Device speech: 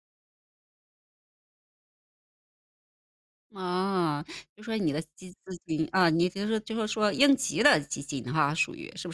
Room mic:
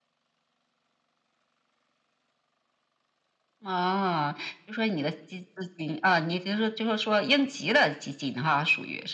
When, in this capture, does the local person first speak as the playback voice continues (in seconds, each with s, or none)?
none